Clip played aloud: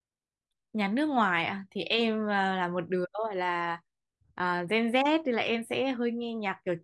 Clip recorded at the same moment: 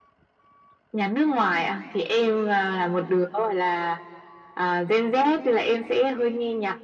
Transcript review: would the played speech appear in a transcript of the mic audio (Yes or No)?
Yes